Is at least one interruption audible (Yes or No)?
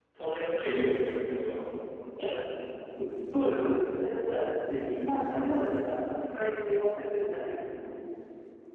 No